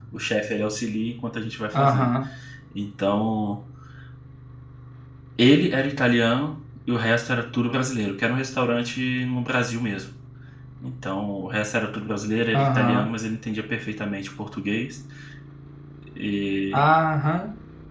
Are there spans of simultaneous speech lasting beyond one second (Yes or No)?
No